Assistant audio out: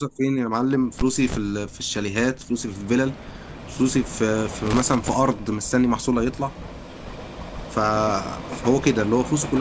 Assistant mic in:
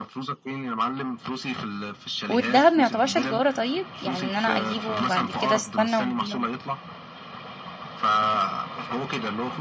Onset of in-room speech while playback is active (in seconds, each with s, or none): 2.3 s